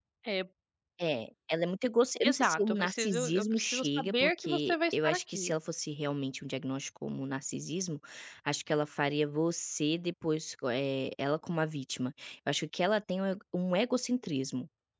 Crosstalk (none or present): present